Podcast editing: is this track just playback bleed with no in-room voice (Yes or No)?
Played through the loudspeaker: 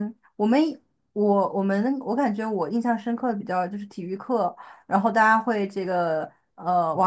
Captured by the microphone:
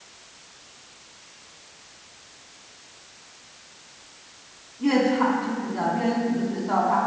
No